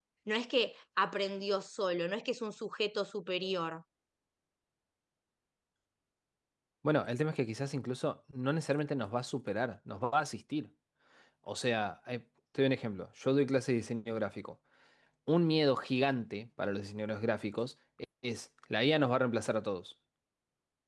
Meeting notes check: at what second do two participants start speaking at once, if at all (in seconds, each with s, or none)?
none